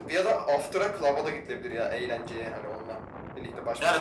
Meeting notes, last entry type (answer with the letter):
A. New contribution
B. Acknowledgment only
A